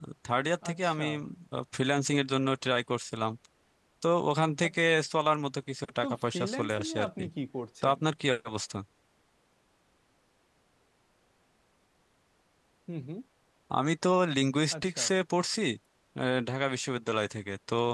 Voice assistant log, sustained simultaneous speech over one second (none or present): present